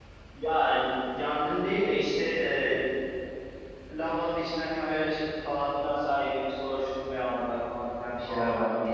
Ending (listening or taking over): taking over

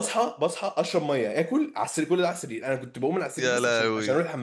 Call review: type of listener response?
listening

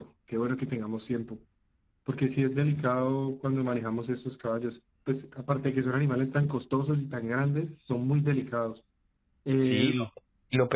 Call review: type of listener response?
taking over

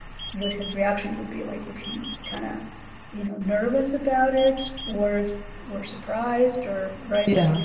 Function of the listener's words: listening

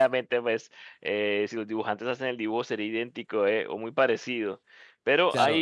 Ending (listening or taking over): taking over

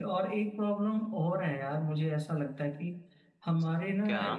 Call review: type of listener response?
listening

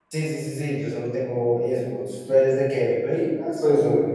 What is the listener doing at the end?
taking over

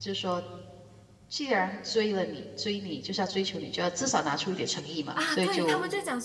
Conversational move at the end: taking over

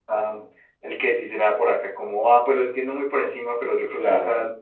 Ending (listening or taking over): listening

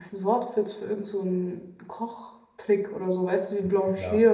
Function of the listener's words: taking over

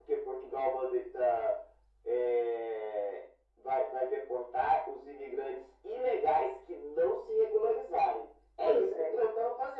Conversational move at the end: listening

